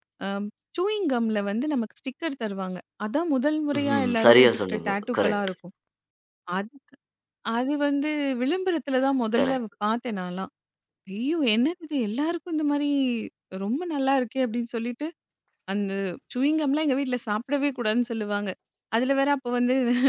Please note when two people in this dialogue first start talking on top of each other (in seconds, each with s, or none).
4.0 s